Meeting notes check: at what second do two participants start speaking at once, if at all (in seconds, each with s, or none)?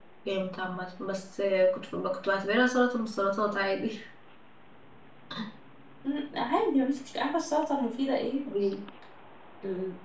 none